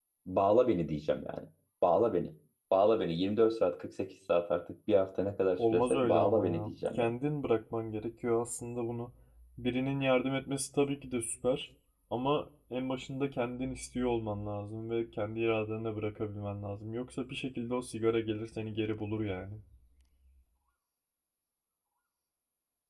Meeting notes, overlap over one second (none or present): present